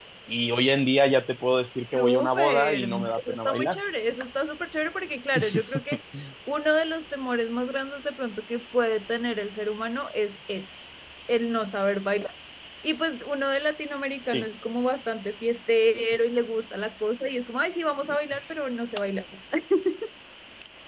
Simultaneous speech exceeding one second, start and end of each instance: 1.9-3.8

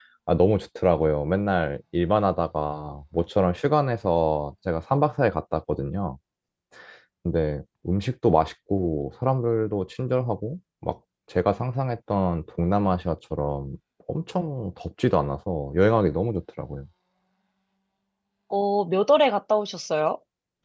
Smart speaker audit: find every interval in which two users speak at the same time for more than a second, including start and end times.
none

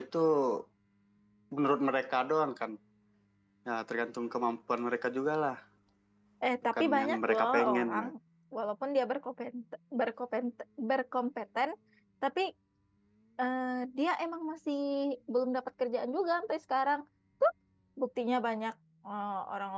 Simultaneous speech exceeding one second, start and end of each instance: 6.7-8.0

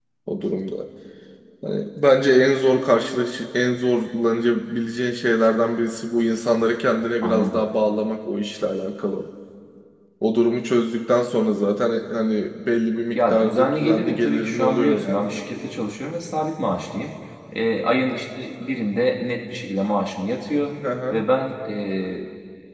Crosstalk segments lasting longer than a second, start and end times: 13.1-15.4

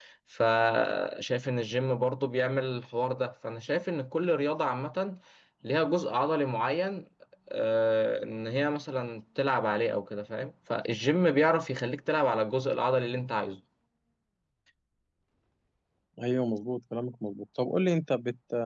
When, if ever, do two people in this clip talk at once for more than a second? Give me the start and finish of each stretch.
none

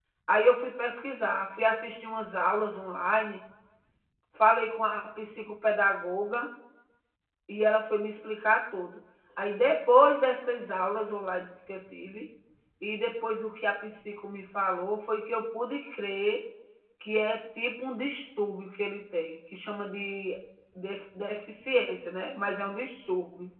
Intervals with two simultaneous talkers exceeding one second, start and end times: none

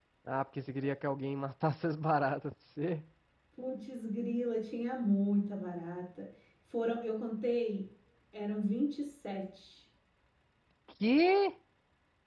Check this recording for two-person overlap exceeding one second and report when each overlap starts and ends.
none

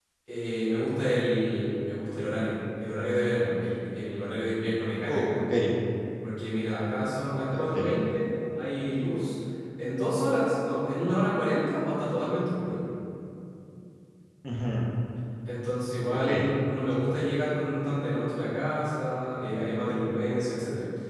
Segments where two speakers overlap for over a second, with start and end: none

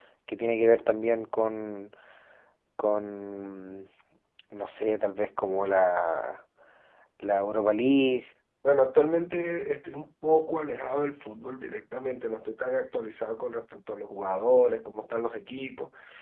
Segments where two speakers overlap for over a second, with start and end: none

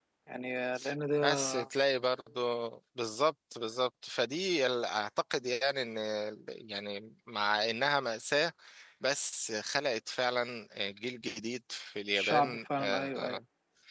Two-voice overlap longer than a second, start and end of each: 12.1-13.4

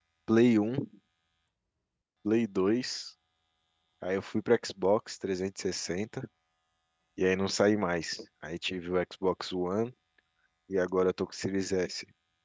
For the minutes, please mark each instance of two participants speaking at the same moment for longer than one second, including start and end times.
none

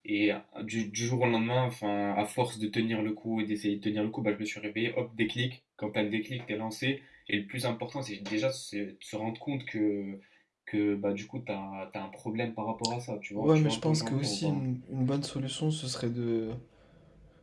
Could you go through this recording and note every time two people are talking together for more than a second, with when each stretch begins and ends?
13.4-14.6

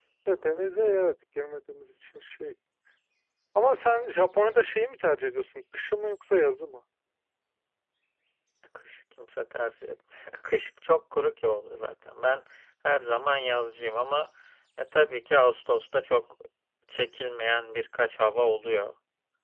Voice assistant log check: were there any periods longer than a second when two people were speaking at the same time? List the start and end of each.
none

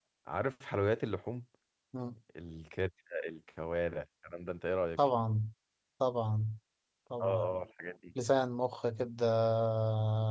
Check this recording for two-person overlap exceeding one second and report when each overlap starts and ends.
none

